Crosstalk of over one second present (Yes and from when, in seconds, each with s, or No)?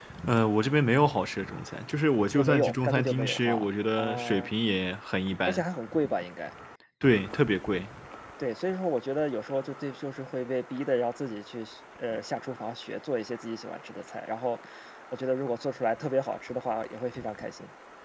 Yes, from 2.4 s